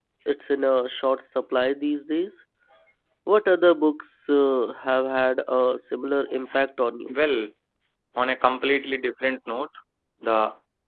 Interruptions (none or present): none